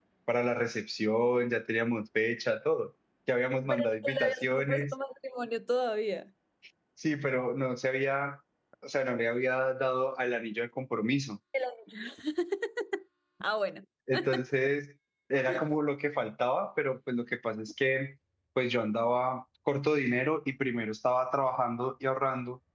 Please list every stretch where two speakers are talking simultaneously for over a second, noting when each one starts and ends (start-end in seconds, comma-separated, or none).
3.7-4.9